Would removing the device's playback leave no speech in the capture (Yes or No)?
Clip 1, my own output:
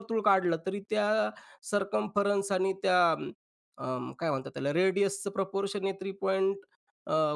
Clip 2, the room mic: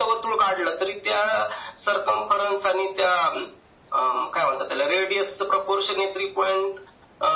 Yes